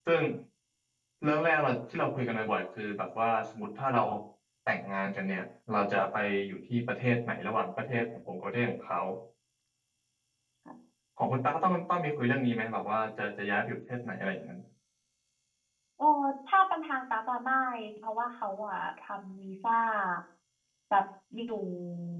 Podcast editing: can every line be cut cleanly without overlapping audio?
Yes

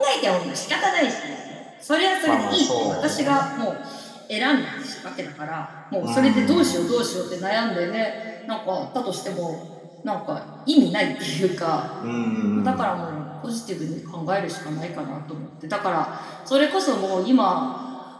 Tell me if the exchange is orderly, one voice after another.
No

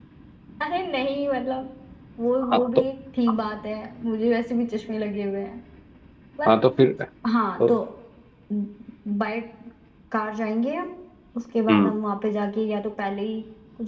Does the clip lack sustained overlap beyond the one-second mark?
Yes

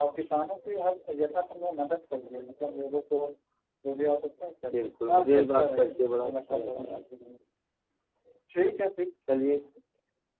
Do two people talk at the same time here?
Yes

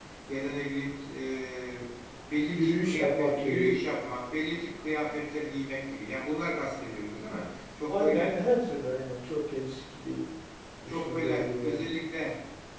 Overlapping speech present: Yes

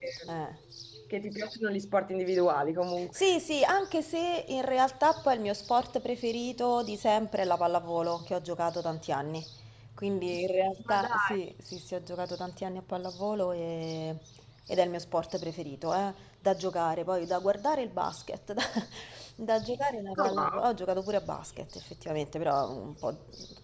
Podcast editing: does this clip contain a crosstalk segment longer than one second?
No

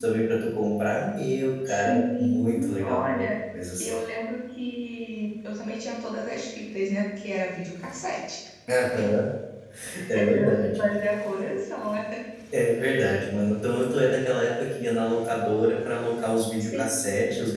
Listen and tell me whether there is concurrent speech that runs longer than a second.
Yes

